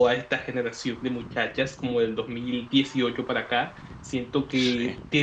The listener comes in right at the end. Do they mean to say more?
No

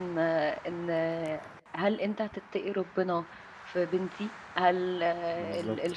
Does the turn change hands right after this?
No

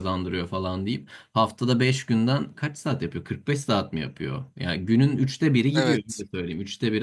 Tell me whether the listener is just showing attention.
Yes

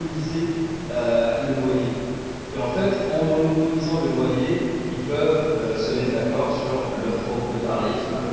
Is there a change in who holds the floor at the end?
No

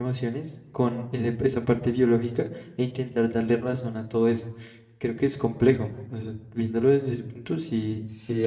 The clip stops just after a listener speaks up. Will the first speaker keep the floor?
No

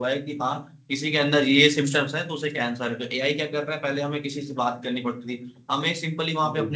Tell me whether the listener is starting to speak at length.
No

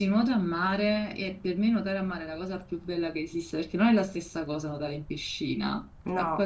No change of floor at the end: No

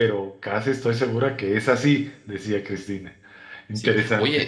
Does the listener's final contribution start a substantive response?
Yes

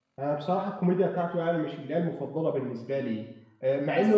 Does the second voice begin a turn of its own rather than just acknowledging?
No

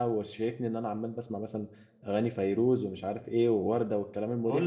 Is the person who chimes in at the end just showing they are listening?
No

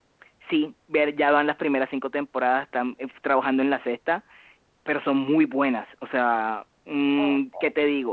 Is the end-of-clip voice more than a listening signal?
No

